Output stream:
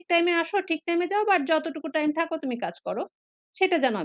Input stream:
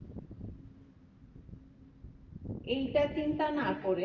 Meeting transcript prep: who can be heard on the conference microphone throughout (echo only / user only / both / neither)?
user only